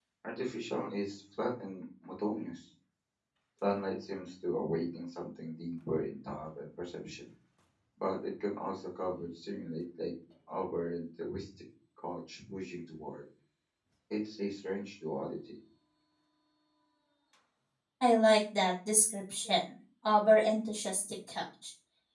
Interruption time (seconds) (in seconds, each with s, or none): none